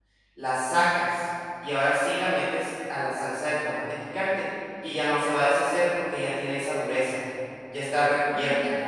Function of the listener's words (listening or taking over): taking over